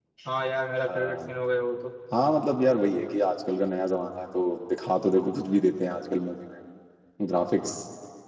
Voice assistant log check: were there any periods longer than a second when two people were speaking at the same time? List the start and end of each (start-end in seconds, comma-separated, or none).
none